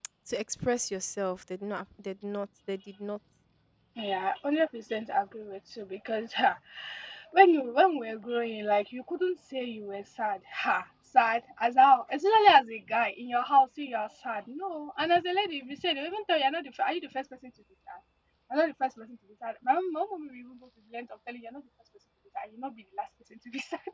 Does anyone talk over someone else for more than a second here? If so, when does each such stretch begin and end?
none

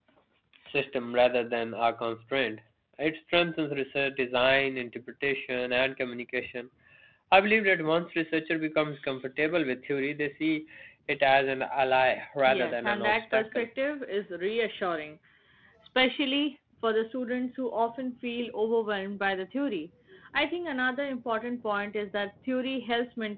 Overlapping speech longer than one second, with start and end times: 12.5-13.7

